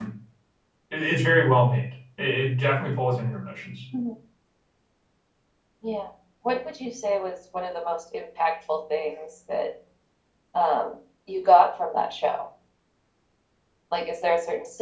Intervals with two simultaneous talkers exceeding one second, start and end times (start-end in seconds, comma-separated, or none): none